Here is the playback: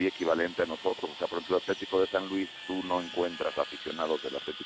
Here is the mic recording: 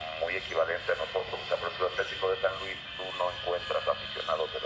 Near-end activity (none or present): none